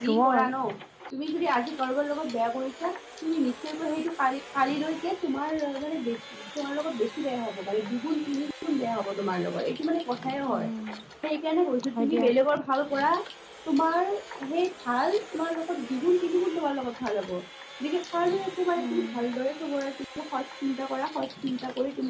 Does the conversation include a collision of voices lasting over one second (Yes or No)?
No